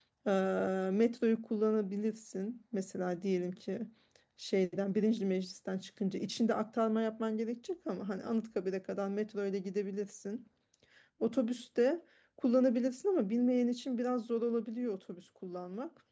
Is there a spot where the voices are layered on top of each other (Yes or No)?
No